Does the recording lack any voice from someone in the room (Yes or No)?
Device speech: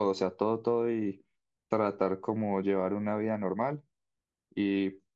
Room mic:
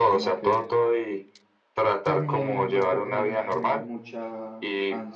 No